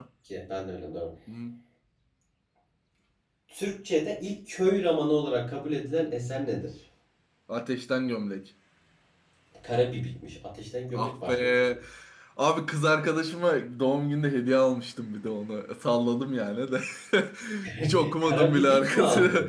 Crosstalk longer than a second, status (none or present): present